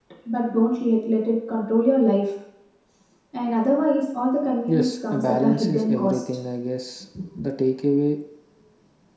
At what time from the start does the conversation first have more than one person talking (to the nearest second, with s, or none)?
5 s